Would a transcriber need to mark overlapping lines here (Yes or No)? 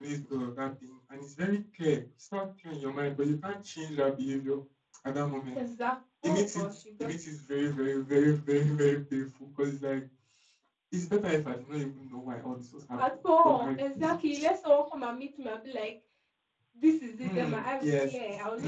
Yes